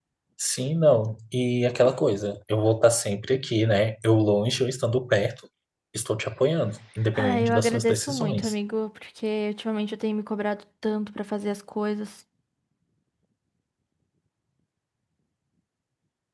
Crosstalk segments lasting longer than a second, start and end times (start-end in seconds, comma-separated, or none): 7.2-8.5